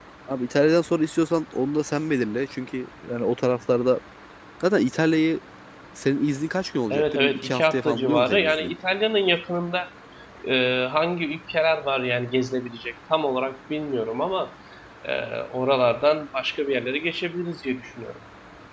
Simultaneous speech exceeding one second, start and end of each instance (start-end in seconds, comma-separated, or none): 6.9-8.7